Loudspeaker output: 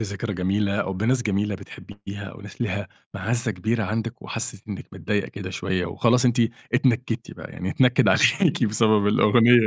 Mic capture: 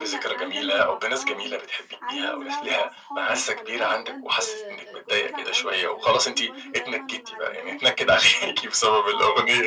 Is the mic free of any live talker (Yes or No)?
No